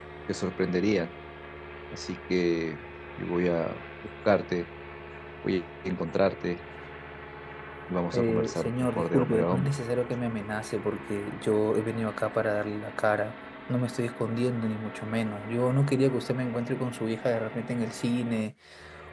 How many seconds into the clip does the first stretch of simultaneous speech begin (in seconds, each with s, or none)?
8.1 s